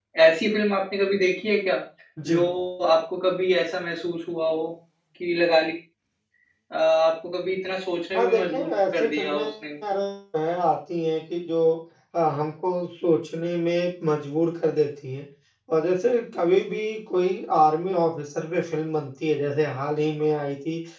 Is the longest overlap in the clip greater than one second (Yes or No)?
Yes